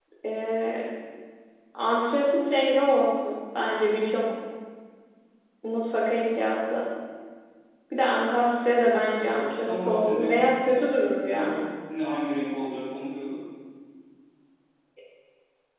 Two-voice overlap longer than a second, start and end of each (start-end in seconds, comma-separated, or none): 9.3-10.5